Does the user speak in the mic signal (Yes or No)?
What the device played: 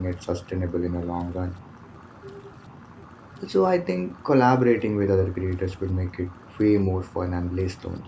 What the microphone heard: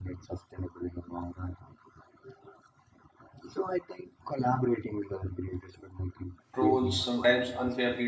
Yes